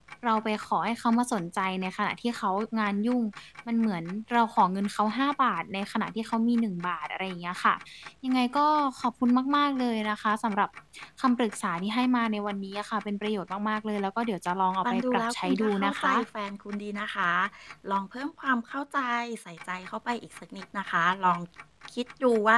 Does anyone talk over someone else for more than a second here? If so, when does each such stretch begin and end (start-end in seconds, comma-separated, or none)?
14.9-16.1